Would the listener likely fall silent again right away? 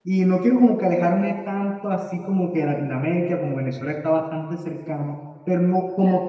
Yes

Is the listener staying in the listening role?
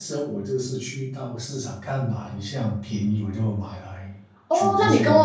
No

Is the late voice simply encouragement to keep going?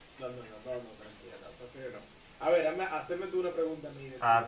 No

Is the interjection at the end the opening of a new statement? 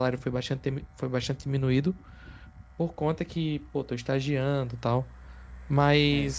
No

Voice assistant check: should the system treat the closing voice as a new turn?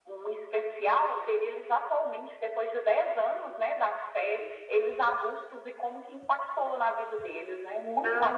Yes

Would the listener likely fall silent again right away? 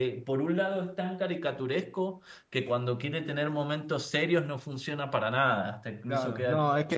No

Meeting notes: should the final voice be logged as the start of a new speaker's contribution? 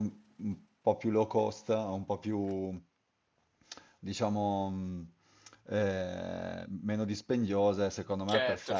Yes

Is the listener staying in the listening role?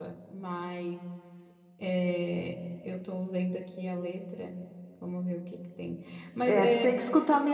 No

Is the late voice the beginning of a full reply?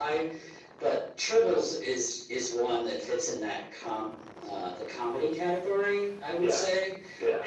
No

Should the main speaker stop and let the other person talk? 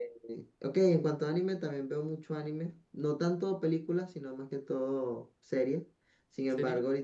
No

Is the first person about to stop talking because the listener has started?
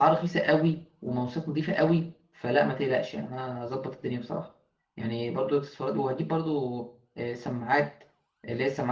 No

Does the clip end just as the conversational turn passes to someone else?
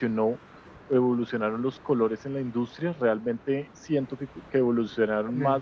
No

